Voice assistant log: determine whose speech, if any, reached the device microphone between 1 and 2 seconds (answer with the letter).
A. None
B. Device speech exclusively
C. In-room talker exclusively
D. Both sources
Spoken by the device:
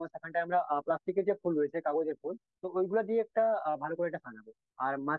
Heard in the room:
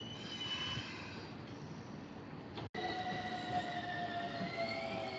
A